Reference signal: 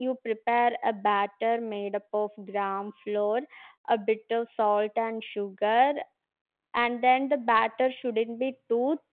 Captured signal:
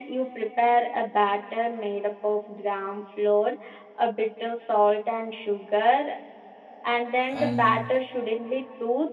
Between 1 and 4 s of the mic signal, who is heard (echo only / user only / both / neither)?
echo only